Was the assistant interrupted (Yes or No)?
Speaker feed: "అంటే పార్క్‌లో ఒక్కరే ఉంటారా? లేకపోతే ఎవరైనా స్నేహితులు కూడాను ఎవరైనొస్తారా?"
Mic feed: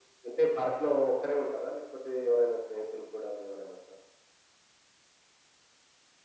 No